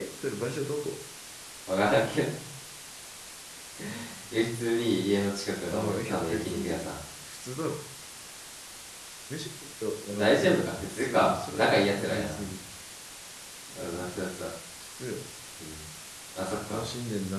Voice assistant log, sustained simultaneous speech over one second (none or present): present